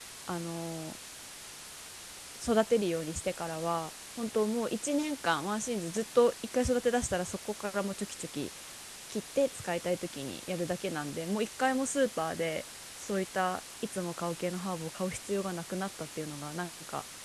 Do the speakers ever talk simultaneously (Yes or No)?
No